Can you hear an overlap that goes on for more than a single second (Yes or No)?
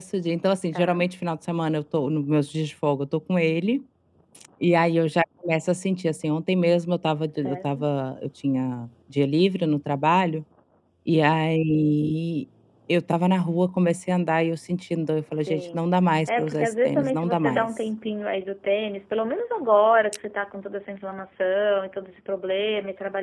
Yes